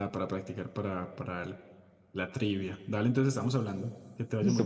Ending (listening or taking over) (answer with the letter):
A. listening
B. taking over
B